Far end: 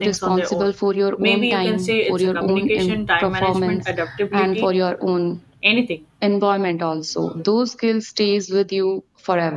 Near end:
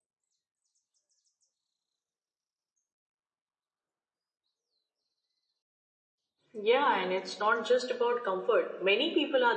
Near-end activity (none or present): present